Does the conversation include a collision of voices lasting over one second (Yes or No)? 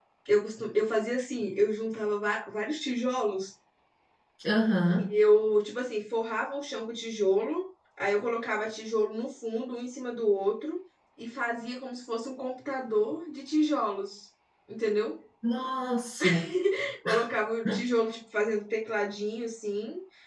No